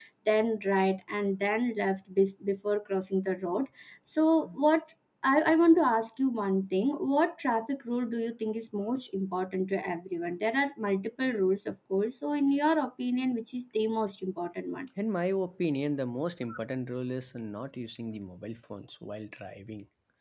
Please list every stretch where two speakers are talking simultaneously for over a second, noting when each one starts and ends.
none

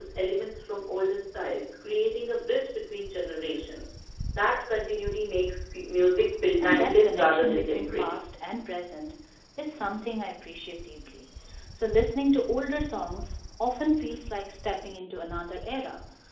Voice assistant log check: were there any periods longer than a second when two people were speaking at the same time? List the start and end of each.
6.6-8.1

